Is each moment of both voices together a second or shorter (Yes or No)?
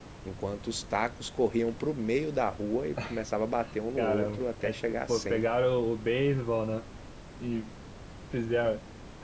No